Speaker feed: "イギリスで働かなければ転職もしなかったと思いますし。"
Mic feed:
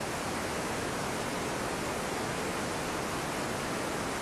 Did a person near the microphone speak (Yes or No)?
No